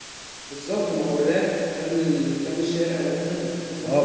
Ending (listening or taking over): taking over